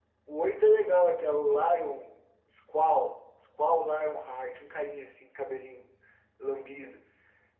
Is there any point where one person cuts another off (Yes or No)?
No